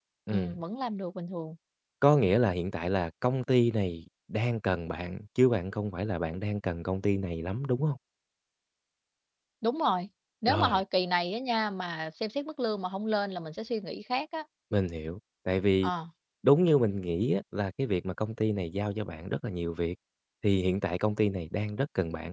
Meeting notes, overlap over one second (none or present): none